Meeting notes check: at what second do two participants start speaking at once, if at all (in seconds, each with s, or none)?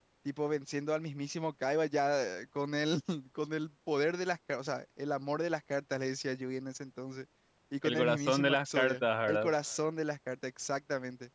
7.8 s